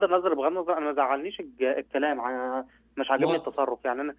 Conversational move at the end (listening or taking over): listening